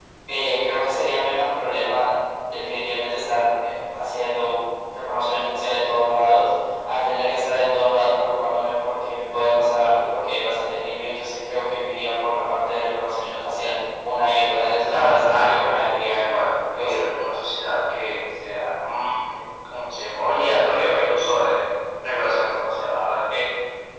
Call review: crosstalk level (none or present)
present